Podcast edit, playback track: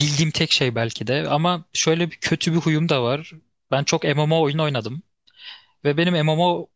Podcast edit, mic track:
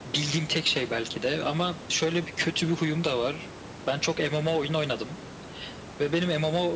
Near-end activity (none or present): none